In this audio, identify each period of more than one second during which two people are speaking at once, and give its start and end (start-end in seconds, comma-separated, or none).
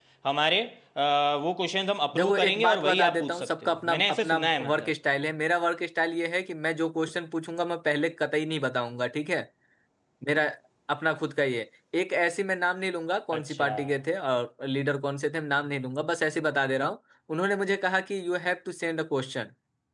2.1-4.9